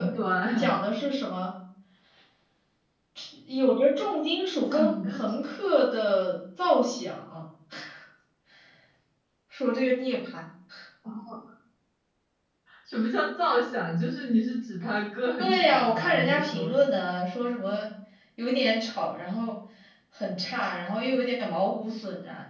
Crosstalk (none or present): present